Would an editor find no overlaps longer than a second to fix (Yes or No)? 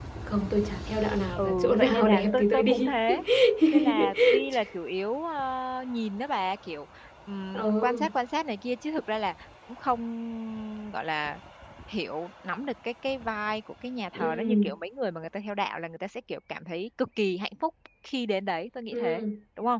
No